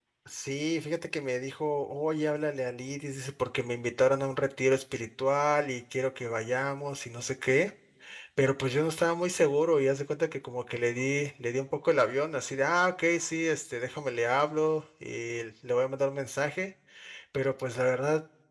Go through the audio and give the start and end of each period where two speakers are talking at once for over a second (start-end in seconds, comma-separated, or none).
none